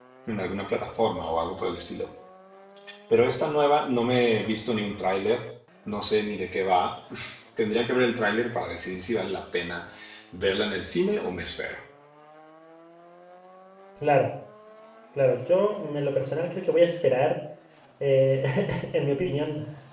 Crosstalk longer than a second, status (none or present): none